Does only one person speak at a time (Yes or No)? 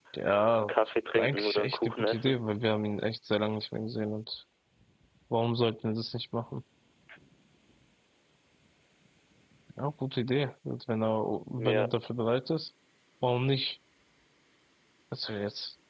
No